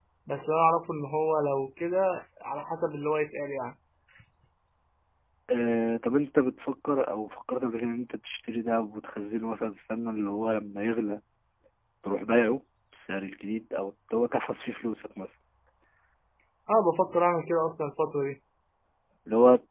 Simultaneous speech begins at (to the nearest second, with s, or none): none